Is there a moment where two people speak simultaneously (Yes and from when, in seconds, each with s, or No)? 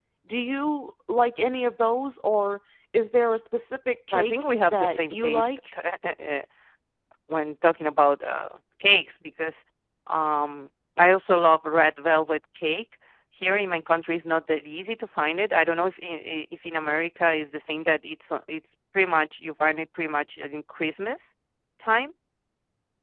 Yes, from 4.1 s